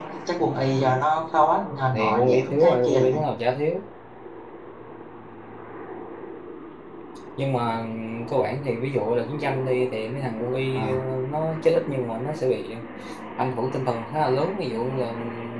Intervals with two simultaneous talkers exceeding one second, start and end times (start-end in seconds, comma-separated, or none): 1.9-3.2